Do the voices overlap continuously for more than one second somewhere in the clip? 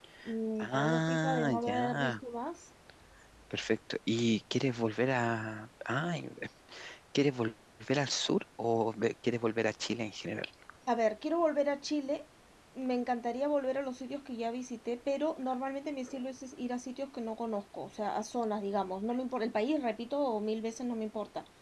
Yes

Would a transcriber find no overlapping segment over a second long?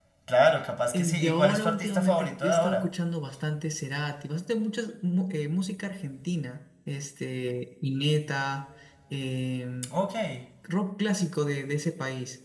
No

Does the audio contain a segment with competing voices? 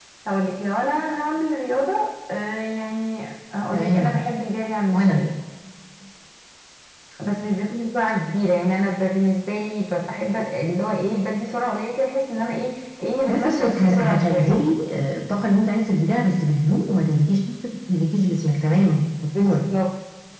Yes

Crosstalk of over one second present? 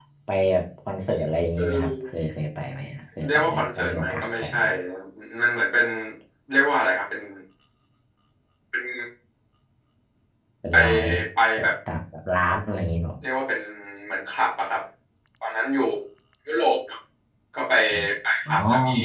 Yes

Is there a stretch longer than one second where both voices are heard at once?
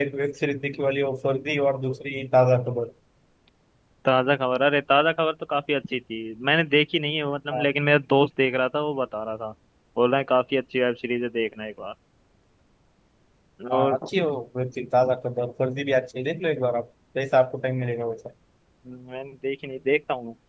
No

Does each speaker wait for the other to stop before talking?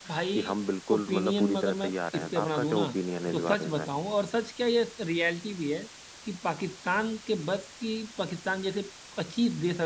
No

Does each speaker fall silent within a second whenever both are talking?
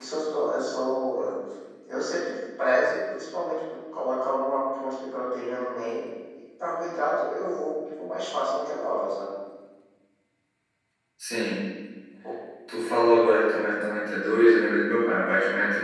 Yes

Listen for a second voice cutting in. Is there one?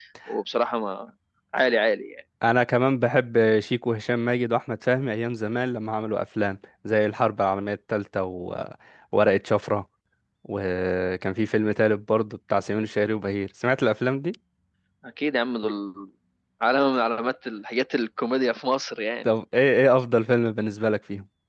No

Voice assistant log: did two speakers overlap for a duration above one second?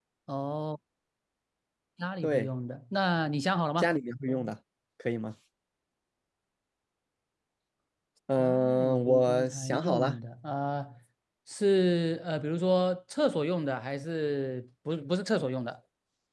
Yes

